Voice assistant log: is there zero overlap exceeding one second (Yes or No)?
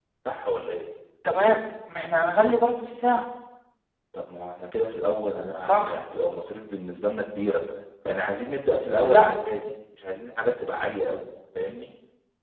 Yes